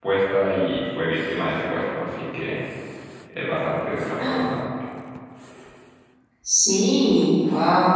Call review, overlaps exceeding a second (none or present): none